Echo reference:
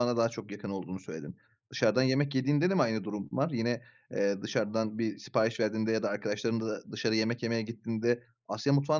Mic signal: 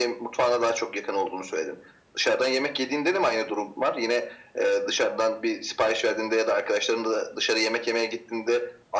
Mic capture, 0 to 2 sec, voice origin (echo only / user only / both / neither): echo only